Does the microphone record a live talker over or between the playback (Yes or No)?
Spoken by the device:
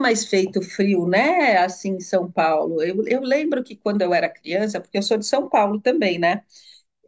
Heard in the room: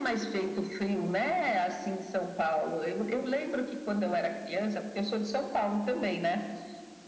No